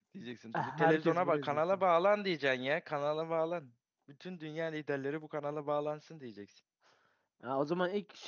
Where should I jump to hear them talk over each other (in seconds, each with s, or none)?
0.5 s